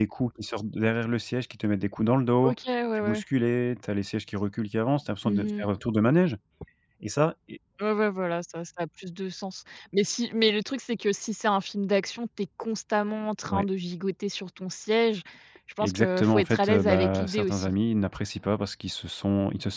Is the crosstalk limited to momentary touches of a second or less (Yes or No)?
No